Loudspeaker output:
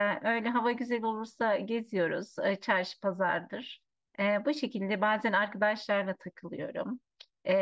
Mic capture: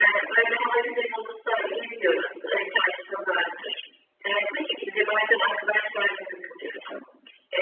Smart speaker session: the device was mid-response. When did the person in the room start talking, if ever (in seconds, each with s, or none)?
none